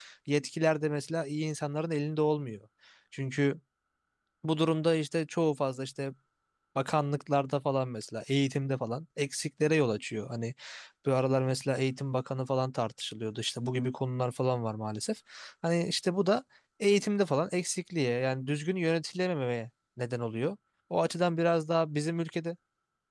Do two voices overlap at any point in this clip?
No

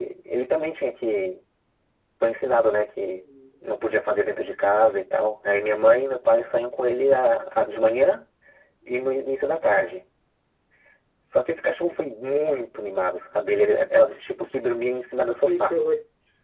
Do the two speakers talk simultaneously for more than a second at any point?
No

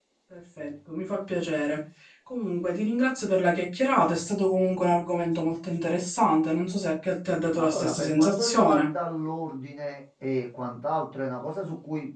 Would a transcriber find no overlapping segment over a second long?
No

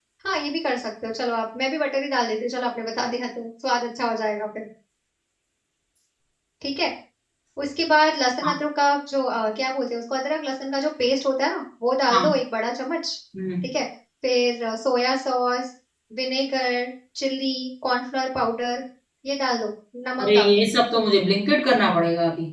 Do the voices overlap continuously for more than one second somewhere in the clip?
No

